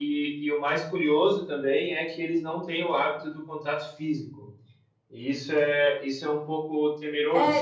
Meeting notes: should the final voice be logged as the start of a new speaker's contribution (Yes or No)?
Yes